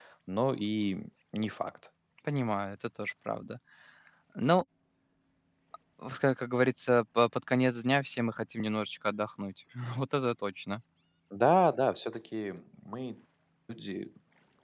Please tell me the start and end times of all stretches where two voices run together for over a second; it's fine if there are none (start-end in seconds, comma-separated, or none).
none